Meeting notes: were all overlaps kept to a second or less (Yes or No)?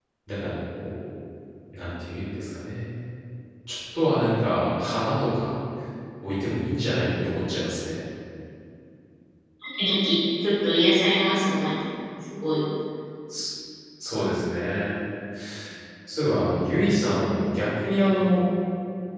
Yes